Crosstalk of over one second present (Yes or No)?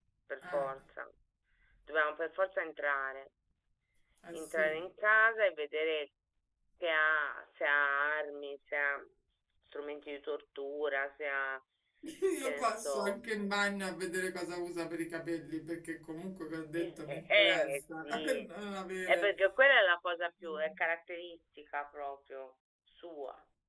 Yes